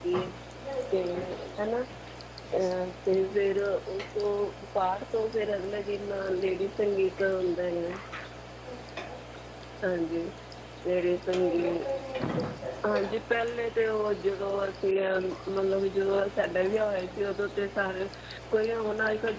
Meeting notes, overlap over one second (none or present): none